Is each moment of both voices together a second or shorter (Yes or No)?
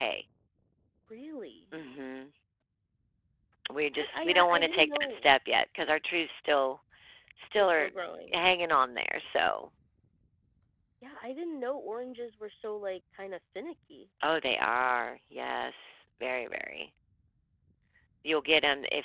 No